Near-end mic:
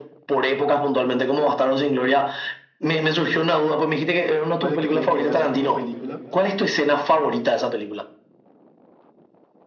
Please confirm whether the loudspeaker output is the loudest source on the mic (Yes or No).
Yes